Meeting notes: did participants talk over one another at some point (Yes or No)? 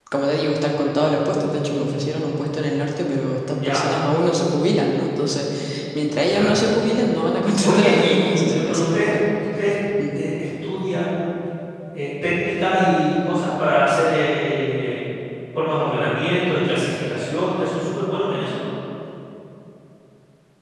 Yes